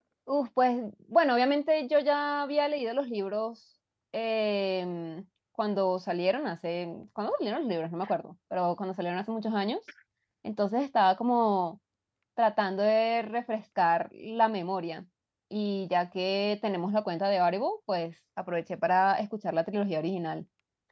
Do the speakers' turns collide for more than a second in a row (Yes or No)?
No